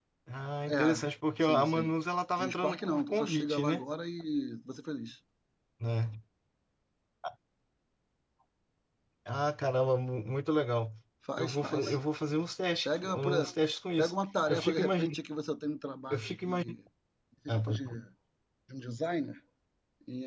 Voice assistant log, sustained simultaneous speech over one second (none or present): present